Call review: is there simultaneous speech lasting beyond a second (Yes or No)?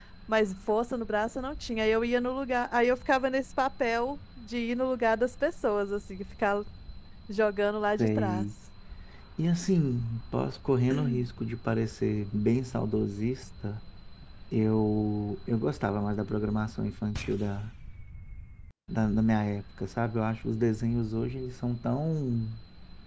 No